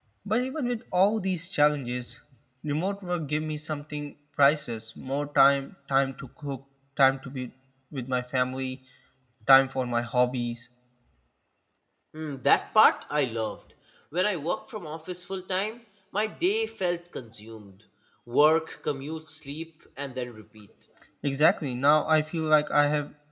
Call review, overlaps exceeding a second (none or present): none